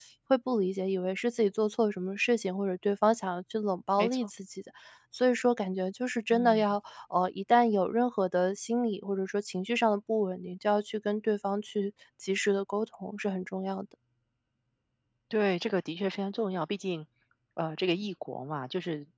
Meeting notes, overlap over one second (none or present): none